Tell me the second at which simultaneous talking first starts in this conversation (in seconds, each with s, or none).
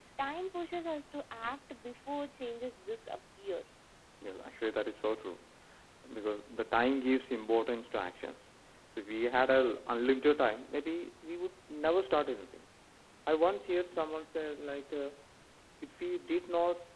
none